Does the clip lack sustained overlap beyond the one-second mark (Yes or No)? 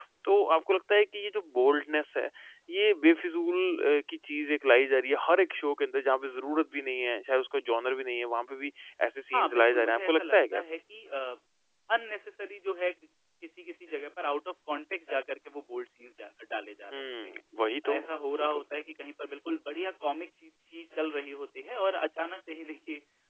No